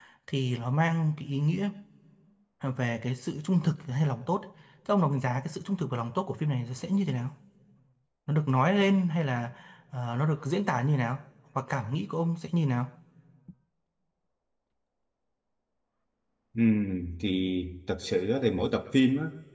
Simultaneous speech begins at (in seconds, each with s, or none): none